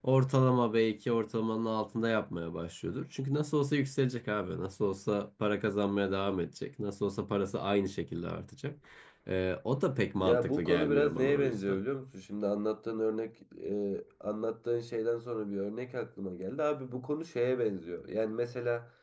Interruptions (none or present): present